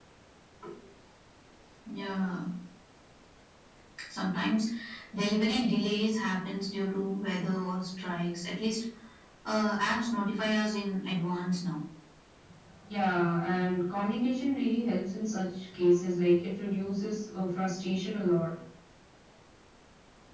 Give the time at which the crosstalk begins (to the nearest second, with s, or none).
none